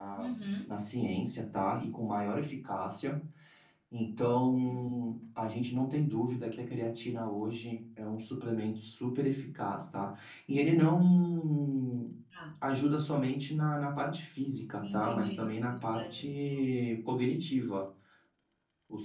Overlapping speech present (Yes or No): Yes